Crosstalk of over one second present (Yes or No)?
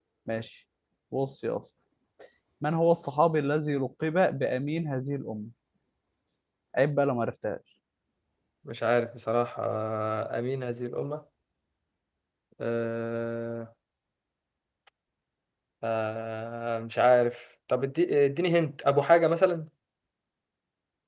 No